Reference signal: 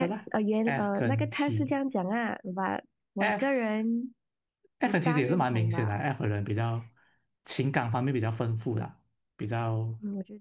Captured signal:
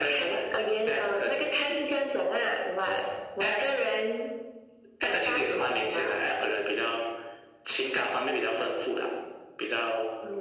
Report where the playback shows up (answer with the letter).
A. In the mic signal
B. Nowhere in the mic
A